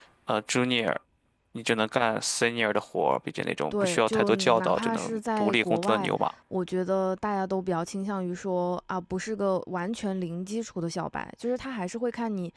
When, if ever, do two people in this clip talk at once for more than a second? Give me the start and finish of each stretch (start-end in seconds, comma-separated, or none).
3.7-6.1